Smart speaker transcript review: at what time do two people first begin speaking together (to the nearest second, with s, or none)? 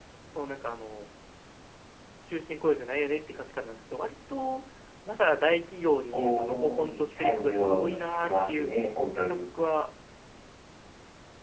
6 s